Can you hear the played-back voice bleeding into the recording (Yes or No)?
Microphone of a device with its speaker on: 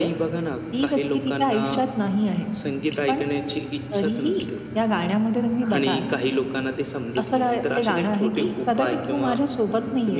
Yes